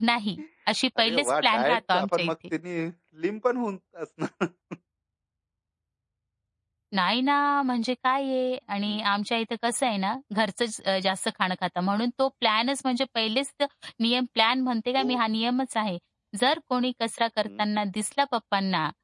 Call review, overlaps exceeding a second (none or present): present